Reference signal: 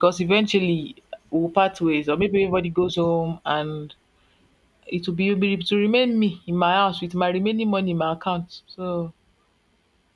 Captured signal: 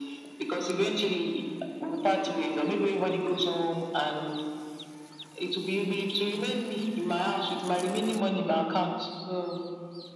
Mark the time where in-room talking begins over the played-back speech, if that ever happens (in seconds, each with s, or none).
none